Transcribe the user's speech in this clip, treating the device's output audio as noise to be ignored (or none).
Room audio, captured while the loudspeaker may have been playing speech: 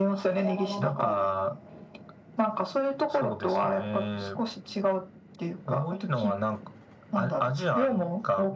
山の中に